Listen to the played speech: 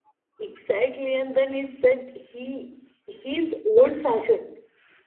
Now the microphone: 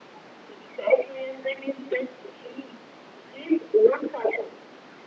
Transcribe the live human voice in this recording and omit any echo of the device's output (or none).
none